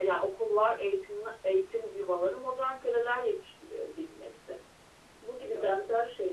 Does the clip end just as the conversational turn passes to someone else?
No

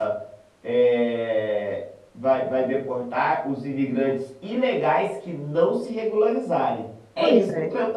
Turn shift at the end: No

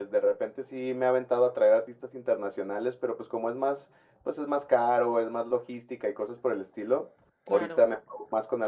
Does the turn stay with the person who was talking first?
Yes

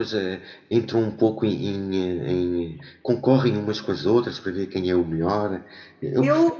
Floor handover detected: No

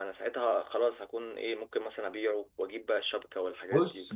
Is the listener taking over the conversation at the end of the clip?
Yes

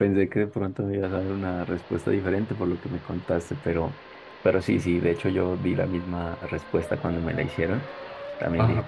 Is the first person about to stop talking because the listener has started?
No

